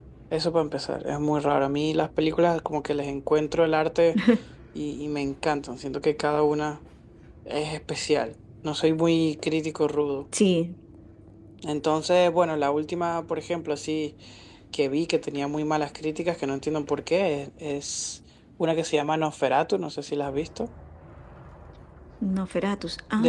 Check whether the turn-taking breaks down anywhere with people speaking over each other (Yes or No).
No